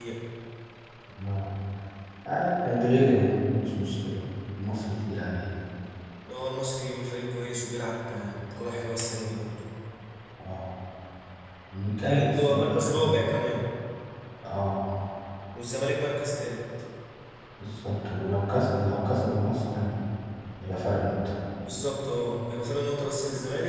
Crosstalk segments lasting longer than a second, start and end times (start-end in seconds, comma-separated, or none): 12.0-13.2